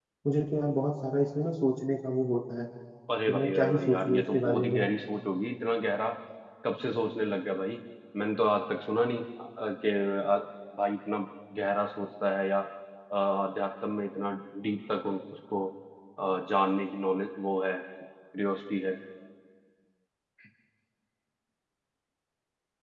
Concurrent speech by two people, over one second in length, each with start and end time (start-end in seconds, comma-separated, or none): 3.3-4.8